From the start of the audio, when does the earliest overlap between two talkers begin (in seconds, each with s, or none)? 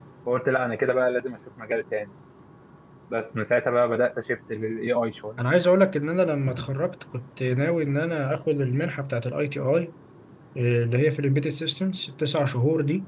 none